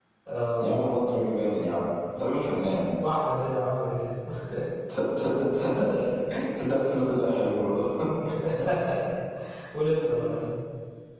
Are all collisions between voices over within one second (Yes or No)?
Yes